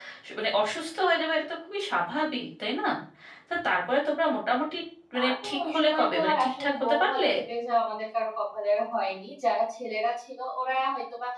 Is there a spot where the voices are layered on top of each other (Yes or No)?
Yes